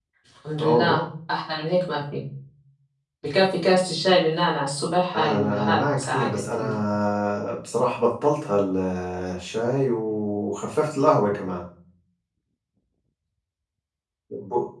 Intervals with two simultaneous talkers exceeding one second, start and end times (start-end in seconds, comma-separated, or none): 5.1-6.8